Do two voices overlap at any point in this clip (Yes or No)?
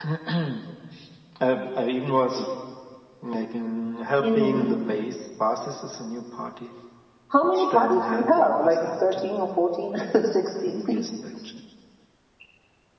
Yes